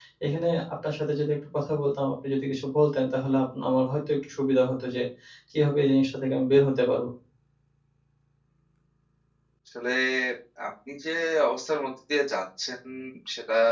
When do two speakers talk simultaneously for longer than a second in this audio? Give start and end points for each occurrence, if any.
none

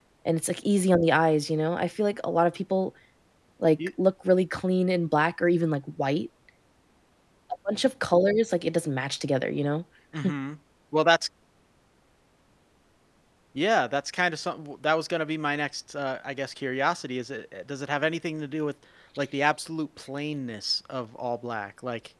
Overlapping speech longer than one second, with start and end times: none

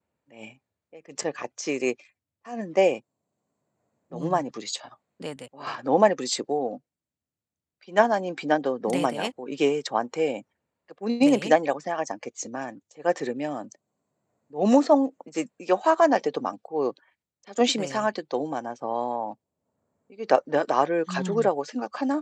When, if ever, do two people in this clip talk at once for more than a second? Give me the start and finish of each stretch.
none

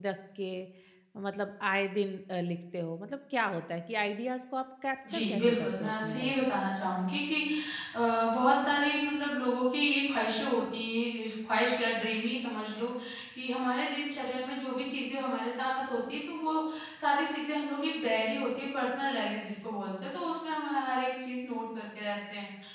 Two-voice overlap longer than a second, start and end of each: 5.1-6.3

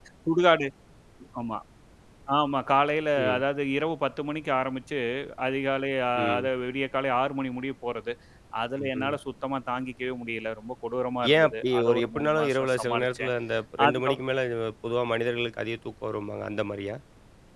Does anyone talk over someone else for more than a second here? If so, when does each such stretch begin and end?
11.3-13.3

